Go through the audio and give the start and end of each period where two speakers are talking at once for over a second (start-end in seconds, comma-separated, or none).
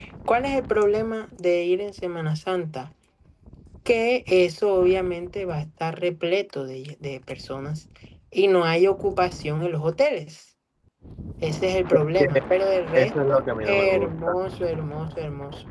12.9-14.3